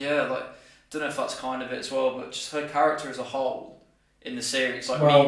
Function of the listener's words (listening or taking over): listening